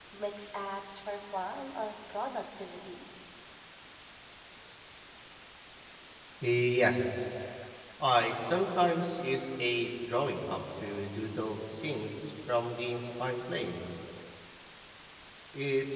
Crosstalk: none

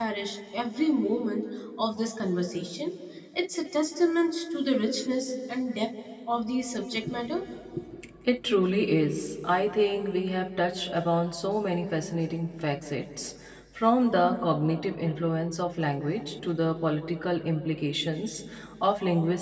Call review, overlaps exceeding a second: none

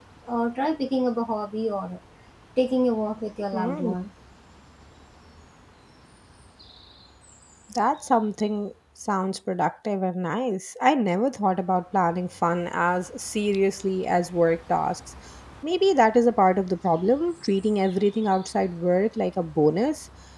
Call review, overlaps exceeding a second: none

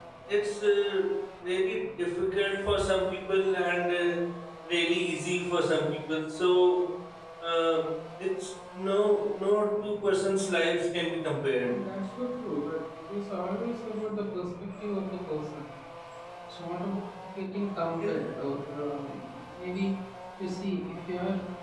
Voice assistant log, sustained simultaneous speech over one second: none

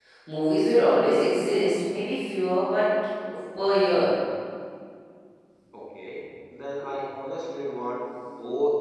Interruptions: none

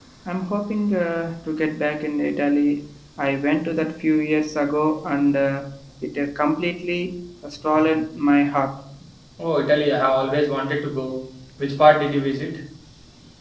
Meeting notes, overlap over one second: none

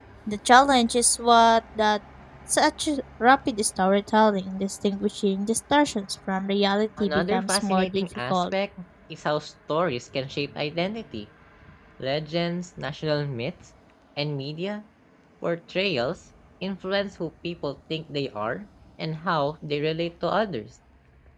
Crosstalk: present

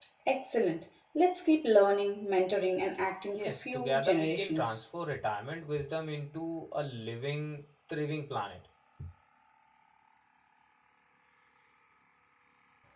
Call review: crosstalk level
present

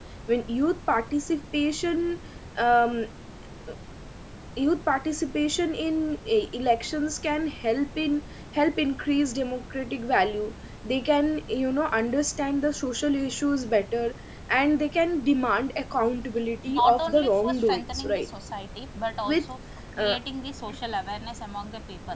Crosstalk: present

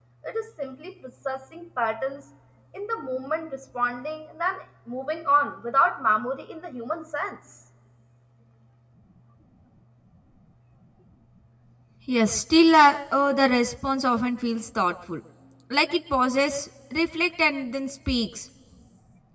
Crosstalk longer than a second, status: none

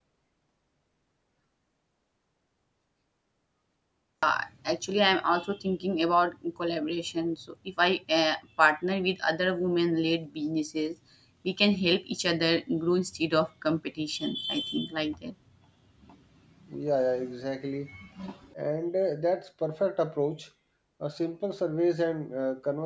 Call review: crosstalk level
none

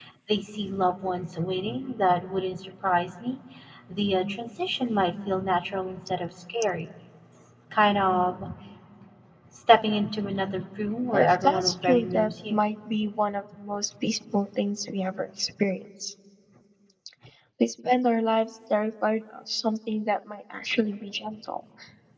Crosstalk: present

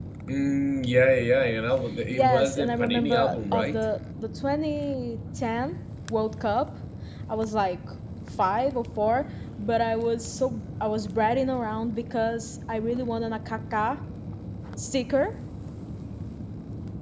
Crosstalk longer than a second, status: present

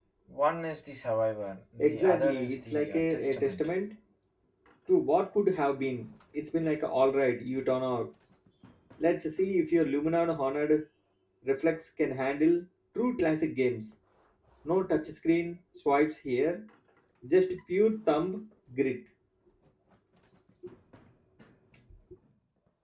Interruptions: present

